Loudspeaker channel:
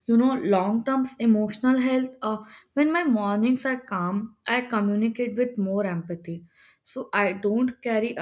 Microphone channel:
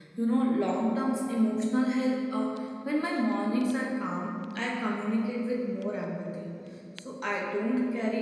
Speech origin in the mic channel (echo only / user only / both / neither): echo only